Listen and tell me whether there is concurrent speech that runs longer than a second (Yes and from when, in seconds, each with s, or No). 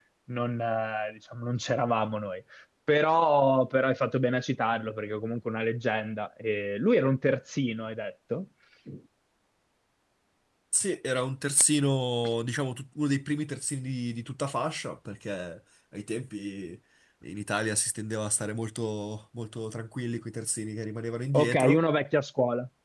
No